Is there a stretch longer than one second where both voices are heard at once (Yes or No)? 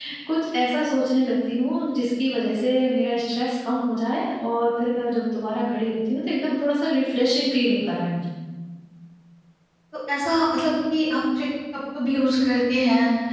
No